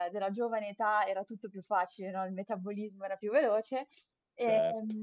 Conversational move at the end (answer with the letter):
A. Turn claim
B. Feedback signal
B